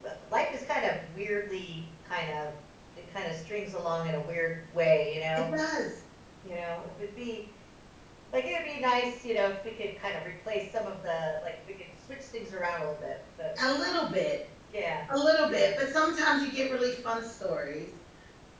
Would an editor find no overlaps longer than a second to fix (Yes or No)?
Yes